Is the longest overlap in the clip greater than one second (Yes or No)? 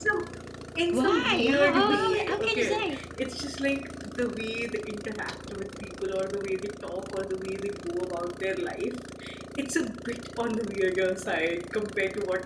Yes